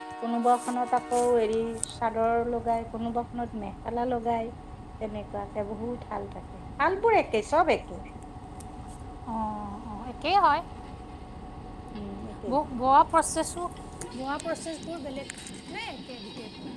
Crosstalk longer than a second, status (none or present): none